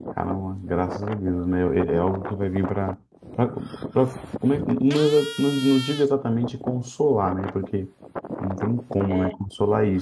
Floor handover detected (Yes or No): No